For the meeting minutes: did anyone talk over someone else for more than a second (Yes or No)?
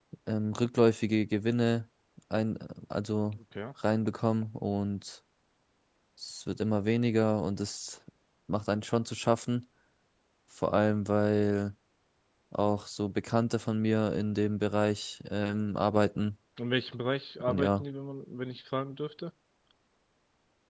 No